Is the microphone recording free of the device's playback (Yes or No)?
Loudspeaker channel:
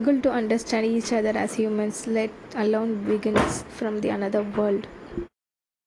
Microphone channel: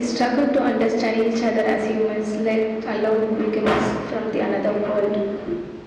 No